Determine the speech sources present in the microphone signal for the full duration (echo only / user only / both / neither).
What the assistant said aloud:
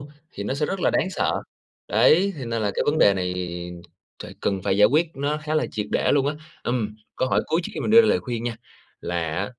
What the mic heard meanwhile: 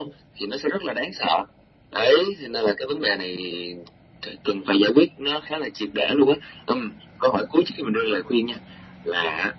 echo only